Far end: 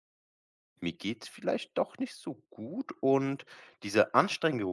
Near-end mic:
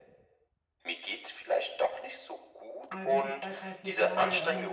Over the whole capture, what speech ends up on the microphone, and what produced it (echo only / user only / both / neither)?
both